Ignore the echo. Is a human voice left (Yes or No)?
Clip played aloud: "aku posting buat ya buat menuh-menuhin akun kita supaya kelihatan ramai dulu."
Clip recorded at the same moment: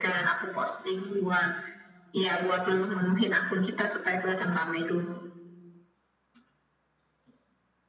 No